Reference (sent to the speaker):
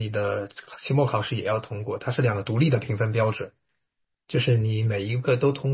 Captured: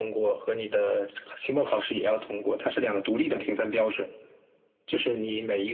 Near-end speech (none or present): none